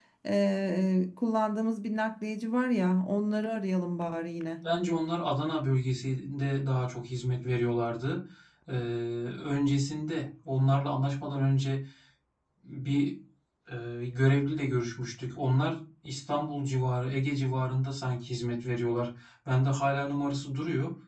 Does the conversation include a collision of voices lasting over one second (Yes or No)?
No